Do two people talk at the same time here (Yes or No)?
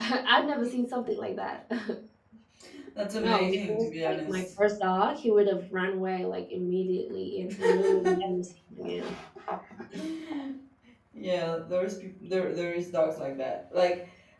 Yes